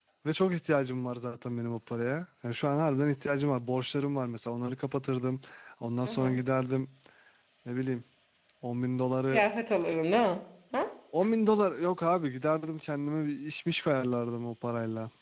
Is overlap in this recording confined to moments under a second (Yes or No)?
Yes